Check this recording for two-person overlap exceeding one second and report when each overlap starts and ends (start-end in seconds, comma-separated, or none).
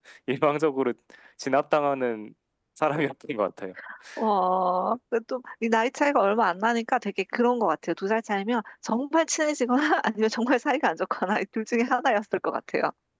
none